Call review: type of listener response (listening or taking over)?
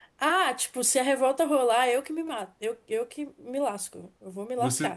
taking over